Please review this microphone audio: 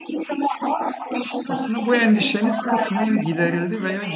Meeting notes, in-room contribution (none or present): present